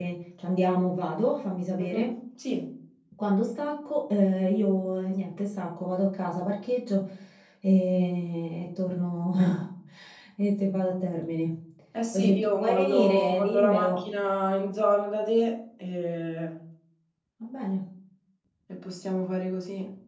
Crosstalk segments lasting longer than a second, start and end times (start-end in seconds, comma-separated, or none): 12.1-14.0